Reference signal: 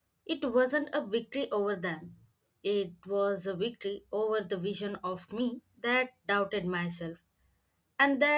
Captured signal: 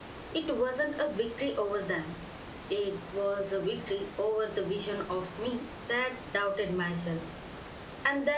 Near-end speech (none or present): none